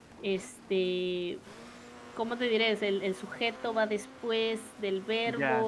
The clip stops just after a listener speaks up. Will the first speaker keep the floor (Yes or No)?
No